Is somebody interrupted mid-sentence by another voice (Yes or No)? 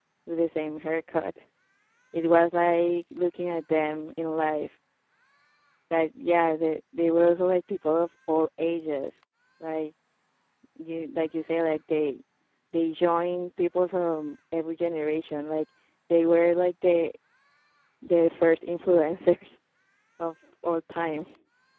No